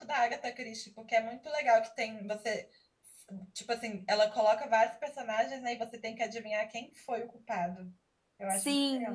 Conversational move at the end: taking over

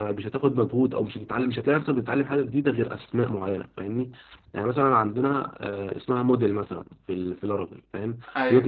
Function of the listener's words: listening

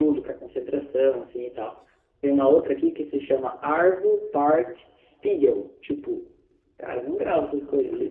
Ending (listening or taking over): listening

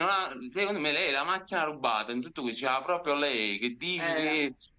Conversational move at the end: listening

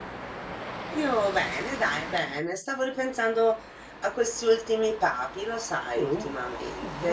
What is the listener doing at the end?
taking over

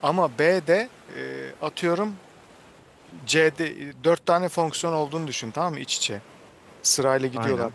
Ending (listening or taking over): listening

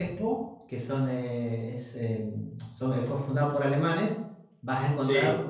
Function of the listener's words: listening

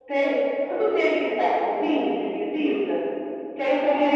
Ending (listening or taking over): listening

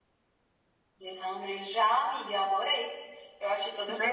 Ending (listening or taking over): listening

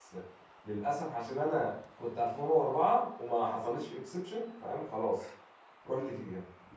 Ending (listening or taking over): taking over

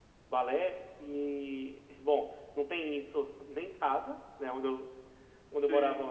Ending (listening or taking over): listening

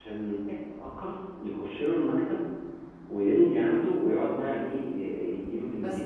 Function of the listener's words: listening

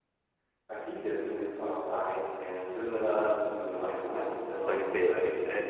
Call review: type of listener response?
taking over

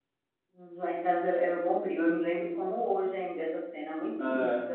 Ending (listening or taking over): listening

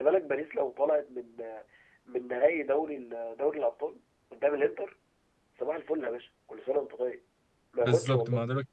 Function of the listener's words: taking over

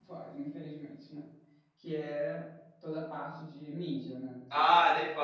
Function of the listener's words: taking over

